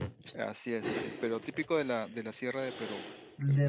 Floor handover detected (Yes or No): Yes